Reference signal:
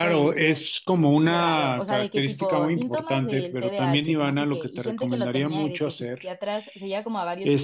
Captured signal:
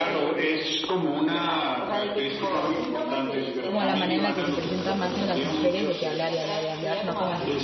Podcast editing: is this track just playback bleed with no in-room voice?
No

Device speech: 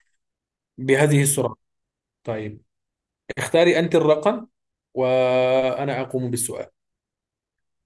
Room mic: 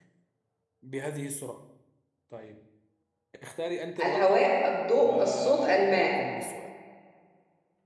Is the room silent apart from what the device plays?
No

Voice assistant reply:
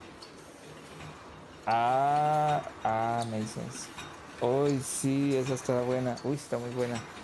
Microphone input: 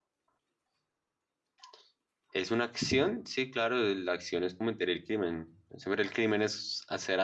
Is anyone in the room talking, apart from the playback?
Yes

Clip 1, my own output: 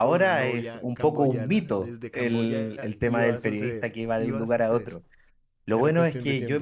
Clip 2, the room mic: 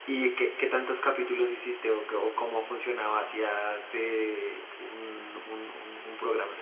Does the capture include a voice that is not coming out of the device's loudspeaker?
Yes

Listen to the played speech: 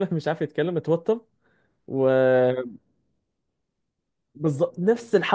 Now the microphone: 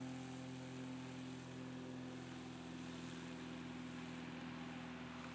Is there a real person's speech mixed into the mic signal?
No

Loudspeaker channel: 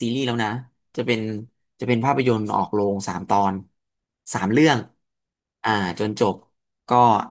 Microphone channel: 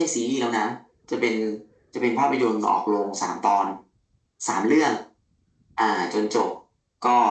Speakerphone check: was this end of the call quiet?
Yes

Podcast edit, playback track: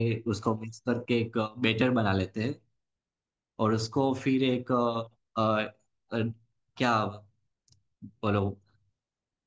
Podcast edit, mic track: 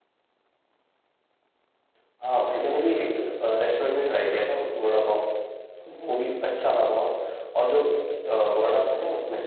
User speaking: Yes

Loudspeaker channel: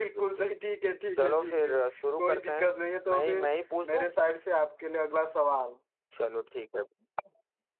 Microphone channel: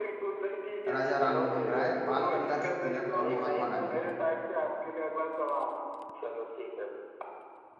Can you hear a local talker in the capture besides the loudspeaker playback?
Yes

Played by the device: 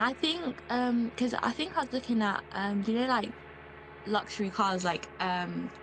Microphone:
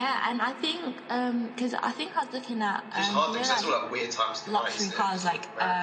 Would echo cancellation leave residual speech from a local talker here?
Yes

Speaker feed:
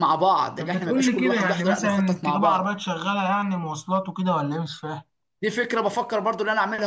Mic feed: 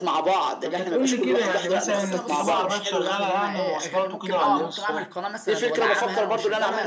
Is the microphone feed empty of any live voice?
No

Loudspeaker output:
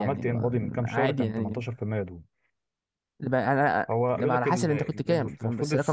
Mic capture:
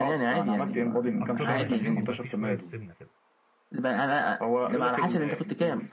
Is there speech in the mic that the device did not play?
Yes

